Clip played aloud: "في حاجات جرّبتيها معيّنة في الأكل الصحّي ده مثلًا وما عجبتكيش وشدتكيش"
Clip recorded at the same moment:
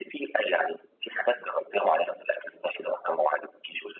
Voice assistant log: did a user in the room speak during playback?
No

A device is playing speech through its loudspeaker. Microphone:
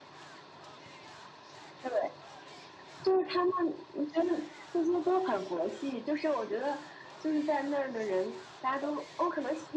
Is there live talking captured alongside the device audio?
No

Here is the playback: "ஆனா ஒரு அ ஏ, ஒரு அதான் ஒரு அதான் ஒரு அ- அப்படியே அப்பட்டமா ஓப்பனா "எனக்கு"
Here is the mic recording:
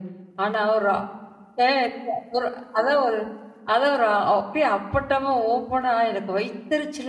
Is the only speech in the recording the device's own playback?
Yes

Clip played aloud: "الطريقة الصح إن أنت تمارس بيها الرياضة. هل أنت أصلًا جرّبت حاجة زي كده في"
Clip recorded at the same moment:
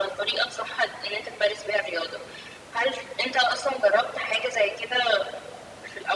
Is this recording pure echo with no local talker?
Yes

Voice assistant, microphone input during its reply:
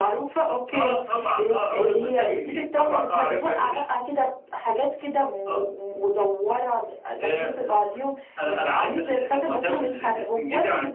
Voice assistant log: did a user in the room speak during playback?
No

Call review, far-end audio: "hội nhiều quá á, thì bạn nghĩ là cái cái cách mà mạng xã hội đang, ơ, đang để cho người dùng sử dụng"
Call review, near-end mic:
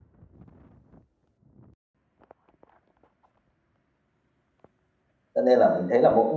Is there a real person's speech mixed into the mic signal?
Yes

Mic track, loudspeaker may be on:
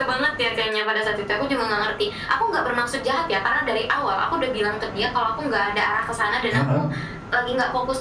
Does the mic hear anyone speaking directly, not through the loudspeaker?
Yes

